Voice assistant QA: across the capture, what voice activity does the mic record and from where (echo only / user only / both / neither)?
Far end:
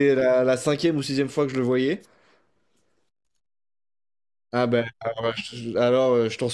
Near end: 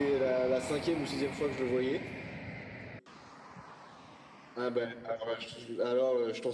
echo only